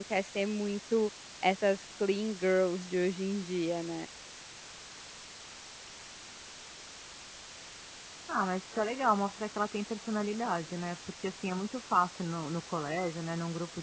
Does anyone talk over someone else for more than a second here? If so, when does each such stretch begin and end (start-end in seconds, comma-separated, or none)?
none